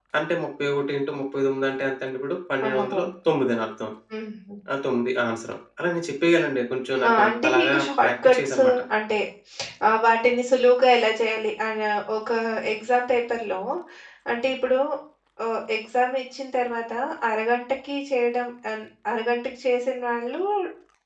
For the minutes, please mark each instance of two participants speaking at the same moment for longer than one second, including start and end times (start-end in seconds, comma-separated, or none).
7.1-8.8